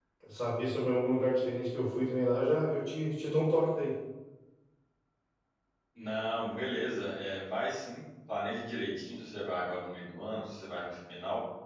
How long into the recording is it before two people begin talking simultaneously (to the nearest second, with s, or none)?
none